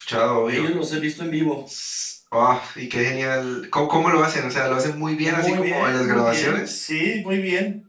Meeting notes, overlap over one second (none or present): present